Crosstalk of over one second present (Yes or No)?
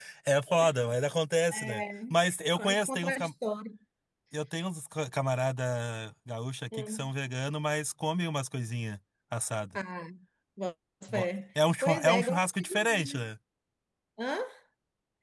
Yes